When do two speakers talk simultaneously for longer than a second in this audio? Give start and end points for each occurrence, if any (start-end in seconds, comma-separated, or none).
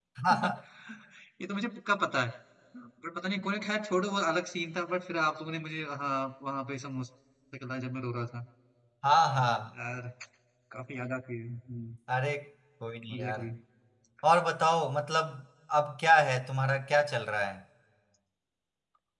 none